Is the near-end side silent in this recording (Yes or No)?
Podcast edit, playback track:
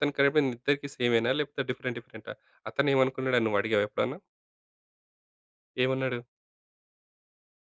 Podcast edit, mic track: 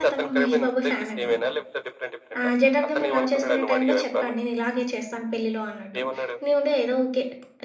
No